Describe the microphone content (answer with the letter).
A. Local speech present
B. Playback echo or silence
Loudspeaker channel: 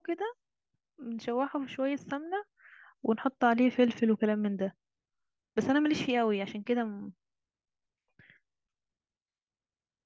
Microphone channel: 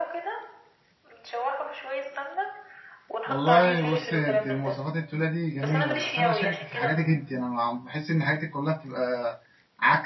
A